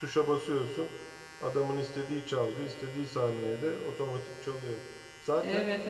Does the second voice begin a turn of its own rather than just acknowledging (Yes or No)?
No